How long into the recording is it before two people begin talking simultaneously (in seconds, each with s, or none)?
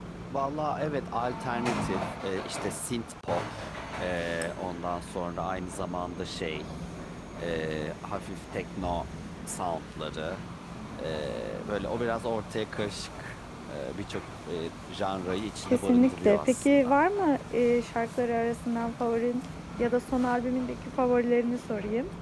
15.6 s